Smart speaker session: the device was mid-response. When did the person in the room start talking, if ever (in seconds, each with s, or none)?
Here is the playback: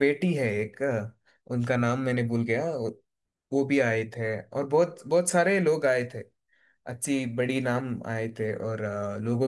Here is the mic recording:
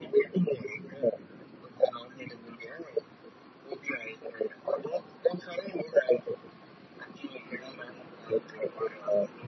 none